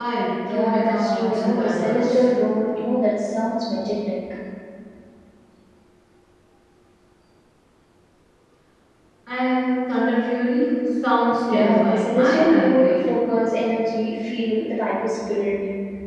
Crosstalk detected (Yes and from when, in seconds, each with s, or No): Yes, from 0.5 s